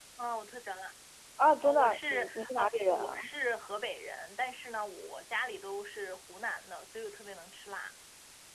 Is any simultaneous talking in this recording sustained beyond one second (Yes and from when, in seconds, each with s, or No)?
Yes, from 1.6 s